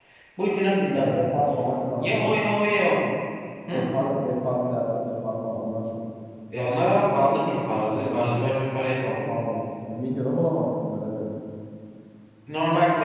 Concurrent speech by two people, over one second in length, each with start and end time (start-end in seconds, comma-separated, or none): none